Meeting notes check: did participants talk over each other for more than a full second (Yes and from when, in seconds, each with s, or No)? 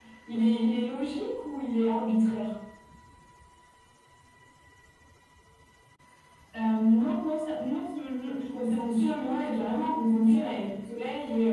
Yes, from 8.5 s